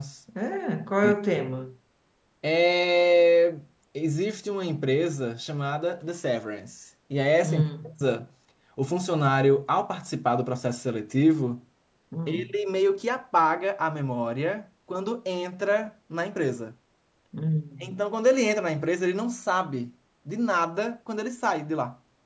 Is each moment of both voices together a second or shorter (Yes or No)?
Yes